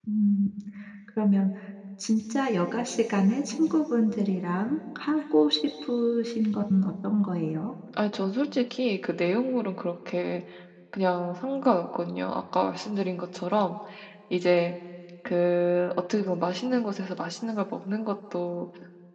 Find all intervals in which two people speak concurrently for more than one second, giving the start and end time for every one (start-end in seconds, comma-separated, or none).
none